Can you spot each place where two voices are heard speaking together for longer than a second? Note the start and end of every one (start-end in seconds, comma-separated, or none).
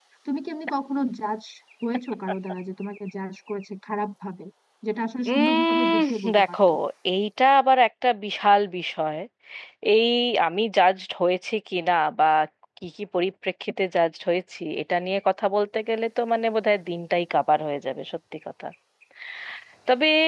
5.3-6.6